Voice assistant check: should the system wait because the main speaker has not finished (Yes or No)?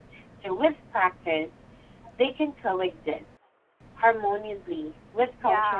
No